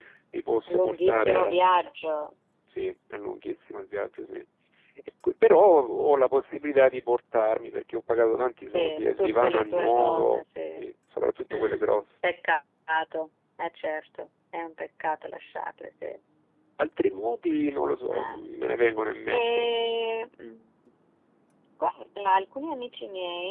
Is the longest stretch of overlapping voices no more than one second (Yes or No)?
No